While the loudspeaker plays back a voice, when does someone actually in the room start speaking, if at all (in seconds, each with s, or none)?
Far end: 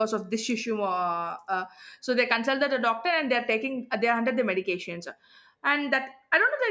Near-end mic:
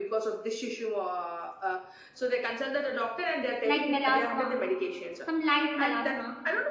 3.6 s